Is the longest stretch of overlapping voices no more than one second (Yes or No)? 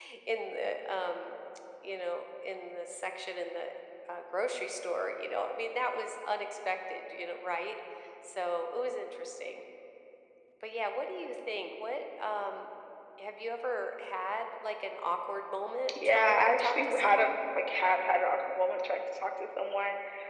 No